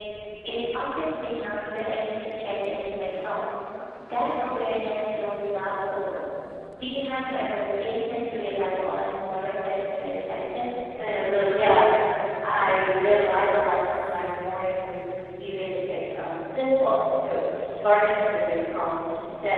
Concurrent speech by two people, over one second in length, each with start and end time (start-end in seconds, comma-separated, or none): none